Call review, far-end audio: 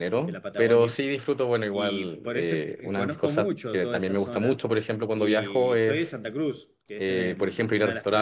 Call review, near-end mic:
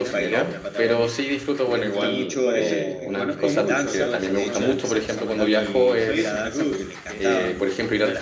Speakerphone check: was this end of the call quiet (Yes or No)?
No